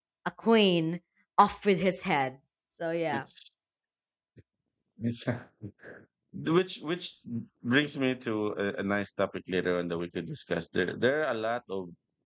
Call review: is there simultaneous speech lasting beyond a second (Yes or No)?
No